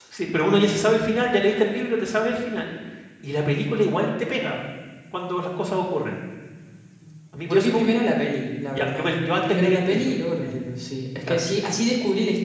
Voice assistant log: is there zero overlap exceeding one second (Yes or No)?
No